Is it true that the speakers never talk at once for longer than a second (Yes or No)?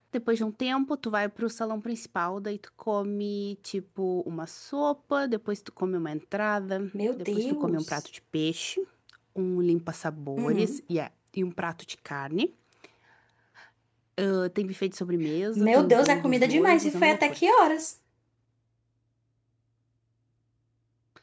No